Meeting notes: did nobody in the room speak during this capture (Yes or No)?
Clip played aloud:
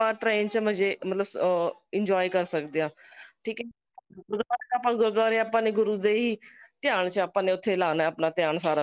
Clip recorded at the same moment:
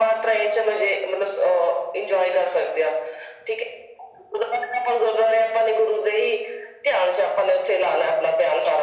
Yes